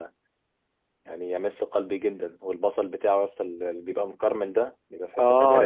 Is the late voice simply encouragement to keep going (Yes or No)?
No